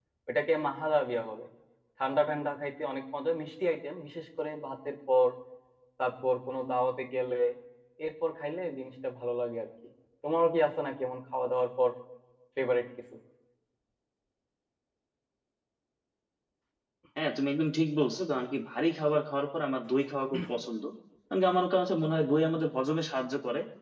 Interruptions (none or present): none